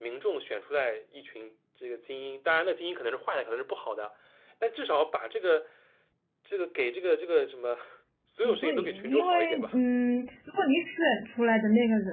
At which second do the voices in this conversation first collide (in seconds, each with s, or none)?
8.4 s